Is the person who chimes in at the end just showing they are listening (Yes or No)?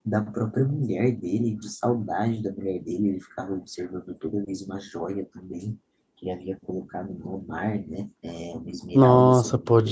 No